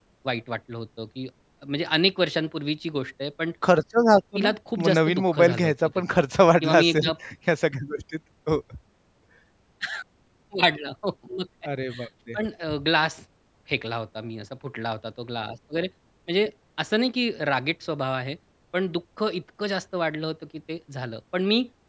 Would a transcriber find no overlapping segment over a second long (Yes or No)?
No